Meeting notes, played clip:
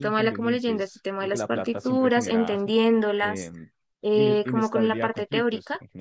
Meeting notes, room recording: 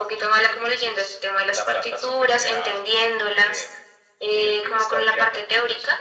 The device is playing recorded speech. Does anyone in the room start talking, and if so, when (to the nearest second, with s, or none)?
none